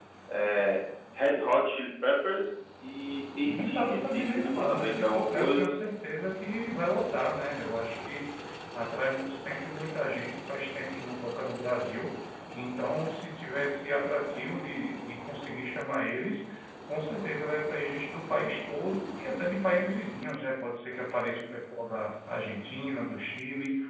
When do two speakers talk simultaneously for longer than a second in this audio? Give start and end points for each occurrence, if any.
3.5-5.7

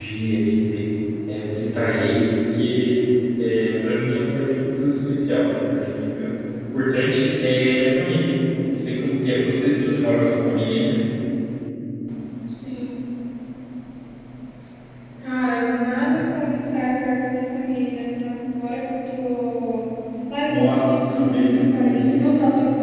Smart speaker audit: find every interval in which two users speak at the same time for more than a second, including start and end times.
20.5-22.2

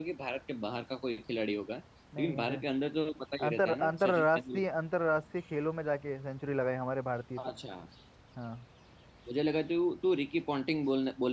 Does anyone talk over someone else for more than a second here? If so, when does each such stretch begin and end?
3.4-4.6

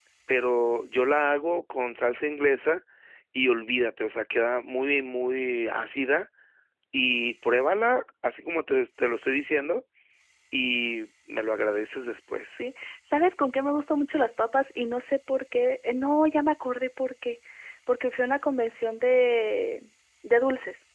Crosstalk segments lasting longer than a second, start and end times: none

